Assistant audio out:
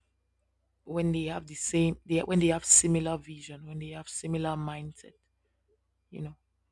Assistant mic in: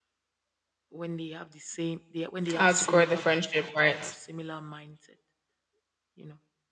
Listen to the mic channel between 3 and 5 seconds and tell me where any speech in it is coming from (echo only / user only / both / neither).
both